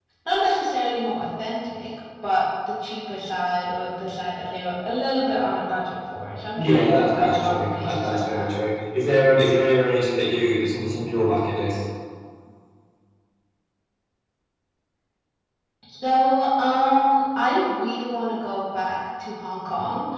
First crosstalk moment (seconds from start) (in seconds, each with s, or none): 6.6 s